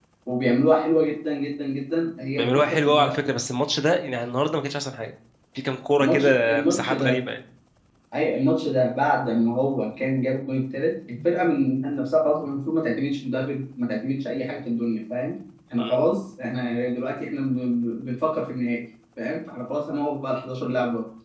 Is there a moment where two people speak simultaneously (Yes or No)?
Yes